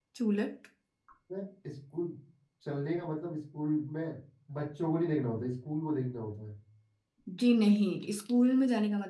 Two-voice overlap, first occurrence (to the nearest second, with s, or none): none